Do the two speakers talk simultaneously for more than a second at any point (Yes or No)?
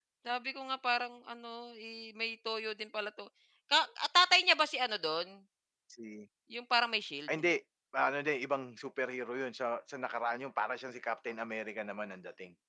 No